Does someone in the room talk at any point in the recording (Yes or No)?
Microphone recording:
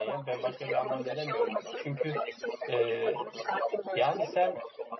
Yes